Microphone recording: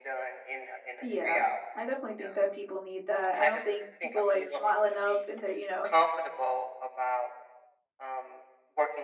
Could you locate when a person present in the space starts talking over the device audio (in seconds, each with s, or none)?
1.0 s